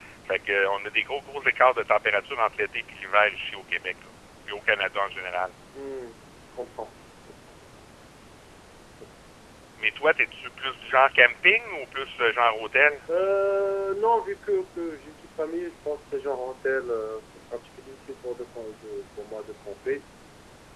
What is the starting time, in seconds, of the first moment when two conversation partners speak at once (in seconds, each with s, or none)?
none